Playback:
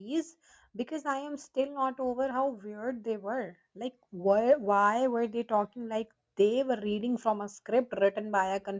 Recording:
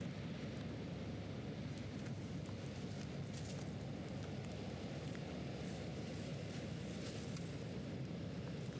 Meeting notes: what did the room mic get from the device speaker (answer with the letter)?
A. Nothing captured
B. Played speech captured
A